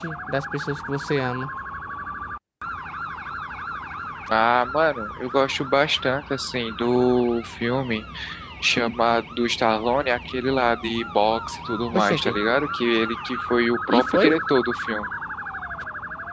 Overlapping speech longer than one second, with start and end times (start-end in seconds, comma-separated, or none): none